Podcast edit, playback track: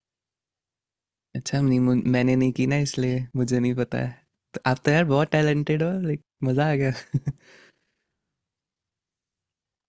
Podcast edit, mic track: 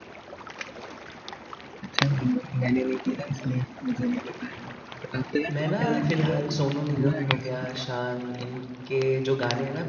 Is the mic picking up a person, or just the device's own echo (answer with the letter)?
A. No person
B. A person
B